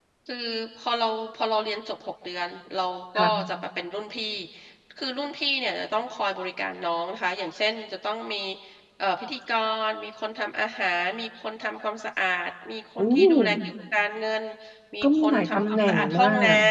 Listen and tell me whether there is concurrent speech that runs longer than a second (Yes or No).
Yes